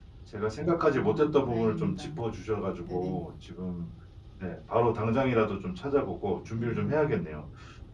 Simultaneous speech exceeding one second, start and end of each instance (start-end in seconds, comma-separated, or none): 0.9-2.2